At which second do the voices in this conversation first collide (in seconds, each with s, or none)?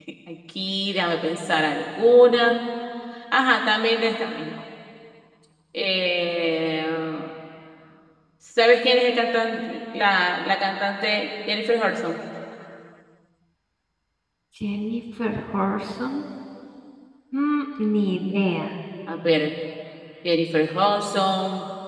none